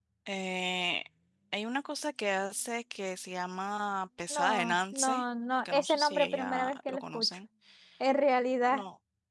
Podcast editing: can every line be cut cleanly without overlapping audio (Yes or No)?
No